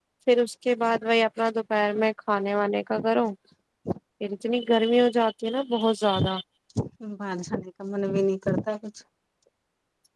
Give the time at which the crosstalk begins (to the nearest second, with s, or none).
none